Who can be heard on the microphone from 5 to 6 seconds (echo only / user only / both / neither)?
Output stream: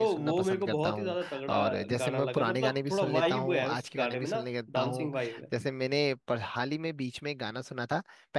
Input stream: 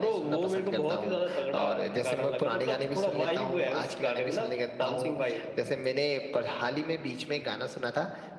echo only